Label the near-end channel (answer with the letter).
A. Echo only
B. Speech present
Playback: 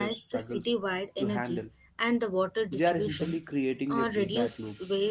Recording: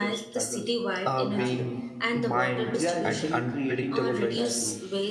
B